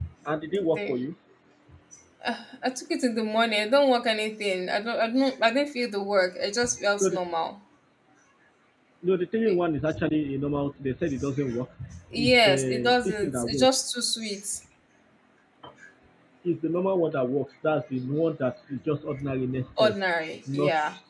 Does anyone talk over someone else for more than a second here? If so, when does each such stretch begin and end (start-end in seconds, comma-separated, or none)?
12.2-13.9